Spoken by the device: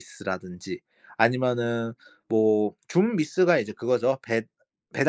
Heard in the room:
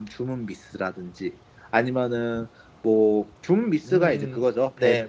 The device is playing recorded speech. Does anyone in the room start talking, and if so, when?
3.8 s

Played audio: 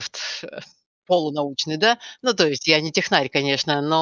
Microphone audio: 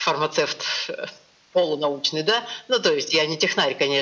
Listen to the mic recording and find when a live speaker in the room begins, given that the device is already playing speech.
none

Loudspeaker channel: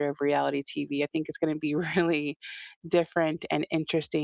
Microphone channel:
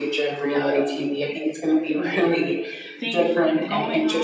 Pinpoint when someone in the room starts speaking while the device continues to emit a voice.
3.0 s

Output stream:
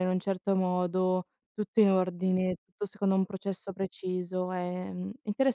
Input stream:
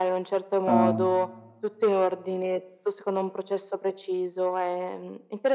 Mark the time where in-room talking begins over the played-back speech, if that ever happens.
0.6 s

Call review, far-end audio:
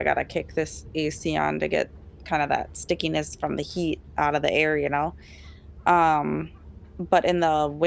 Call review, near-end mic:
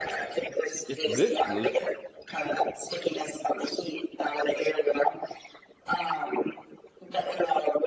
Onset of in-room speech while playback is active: 0.9 s

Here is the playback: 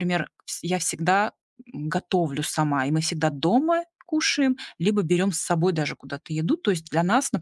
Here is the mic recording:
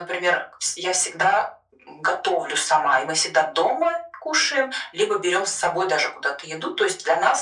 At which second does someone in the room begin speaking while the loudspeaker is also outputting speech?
none

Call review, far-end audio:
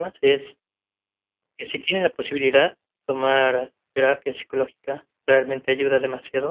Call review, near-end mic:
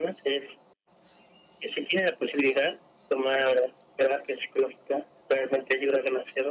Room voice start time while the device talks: none

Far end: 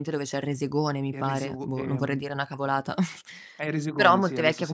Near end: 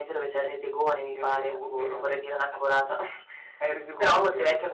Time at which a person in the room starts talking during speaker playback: none

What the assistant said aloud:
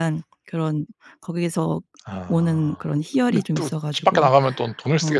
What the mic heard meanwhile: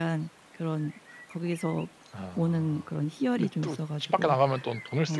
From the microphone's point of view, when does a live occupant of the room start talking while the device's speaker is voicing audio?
none

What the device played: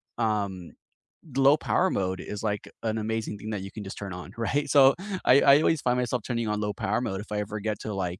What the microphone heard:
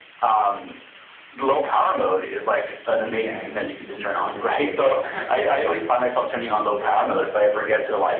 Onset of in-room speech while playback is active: 3.0 s

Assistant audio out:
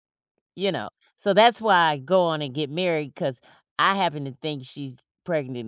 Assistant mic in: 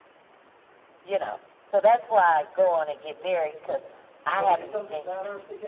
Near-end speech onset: 4.2 s

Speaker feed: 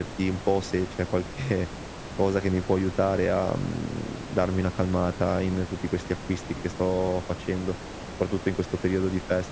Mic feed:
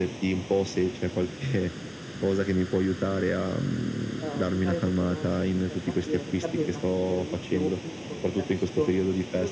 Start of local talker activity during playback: 4.2 s

